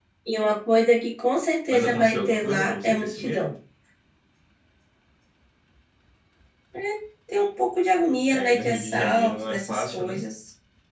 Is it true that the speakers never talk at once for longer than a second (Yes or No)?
No